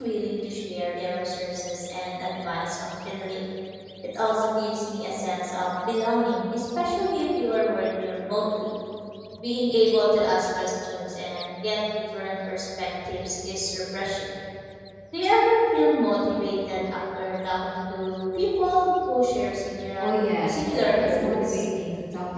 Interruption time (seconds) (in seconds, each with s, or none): 20.0 s